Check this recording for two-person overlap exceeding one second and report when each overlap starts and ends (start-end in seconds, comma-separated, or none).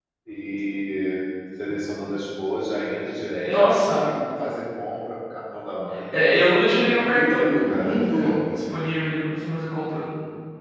7.0-8.5